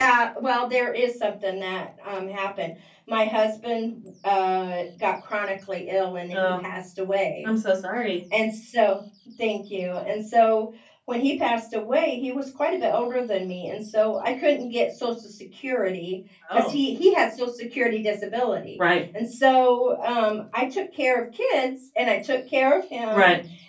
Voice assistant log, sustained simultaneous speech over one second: none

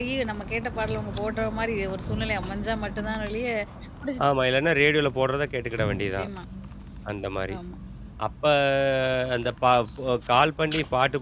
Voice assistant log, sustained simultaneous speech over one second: none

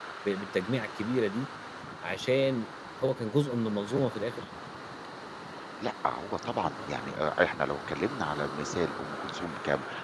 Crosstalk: none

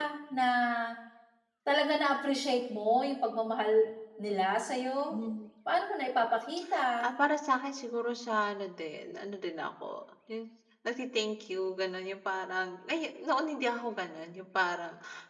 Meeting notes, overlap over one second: none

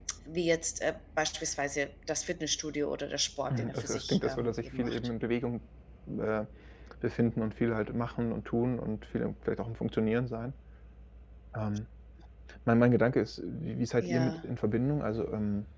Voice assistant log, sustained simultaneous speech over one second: present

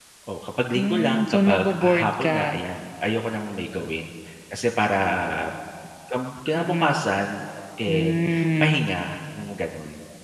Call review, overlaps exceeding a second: present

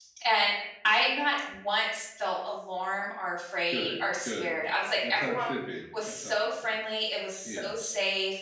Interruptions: present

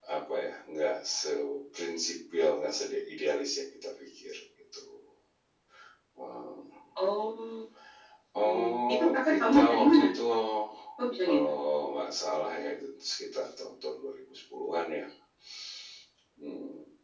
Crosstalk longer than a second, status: present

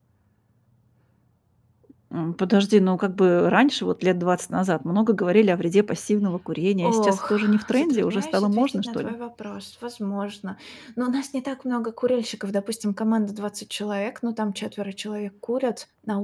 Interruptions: present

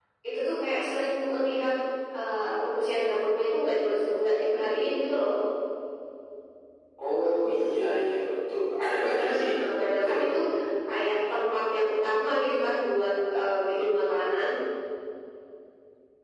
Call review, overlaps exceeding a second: none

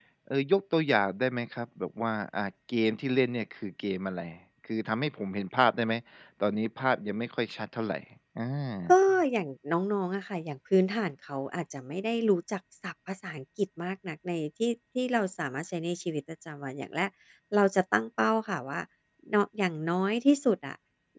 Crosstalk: none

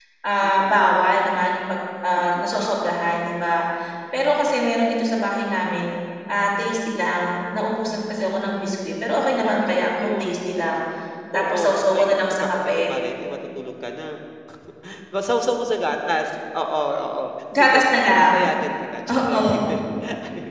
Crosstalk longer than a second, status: present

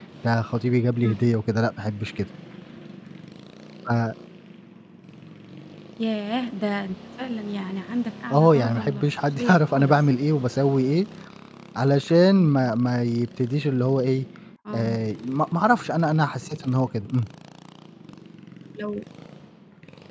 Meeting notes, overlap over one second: present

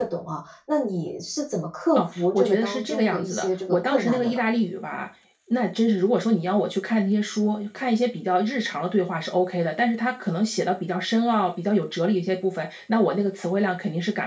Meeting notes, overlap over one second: present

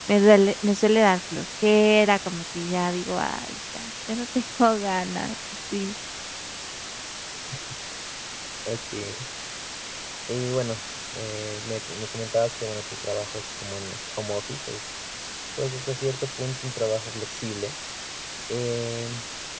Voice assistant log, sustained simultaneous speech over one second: none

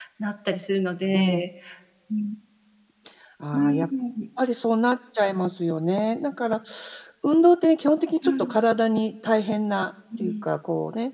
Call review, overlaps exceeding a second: none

